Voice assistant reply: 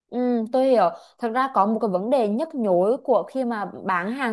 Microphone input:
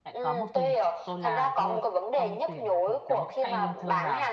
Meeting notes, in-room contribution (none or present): present